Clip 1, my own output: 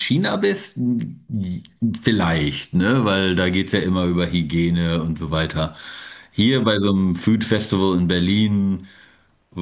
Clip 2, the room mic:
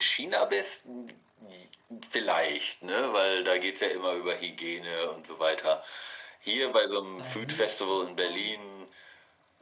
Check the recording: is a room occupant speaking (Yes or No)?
Yes